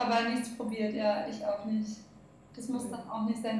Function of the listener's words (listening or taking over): listening